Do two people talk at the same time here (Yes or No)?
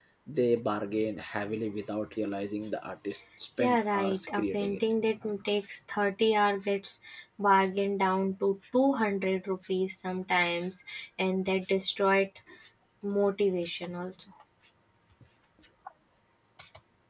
Yes